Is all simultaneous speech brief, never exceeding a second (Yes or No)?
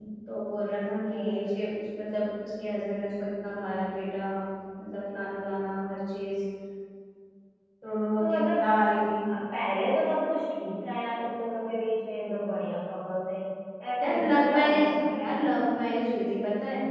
No